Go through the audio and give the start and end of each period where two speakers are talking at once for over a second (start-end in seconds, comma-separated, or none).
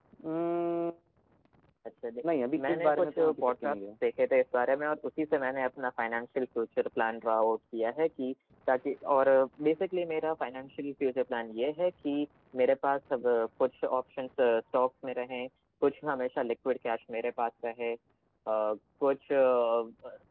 2.7-3.9